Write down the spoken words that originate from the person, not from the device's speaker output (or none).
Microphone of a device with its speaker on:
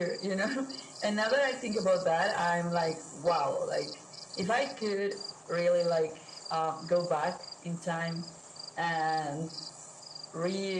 none